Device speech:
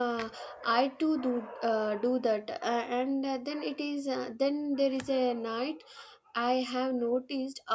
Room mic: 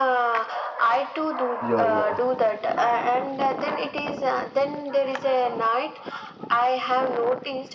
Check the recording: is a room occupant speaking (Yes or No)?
Yes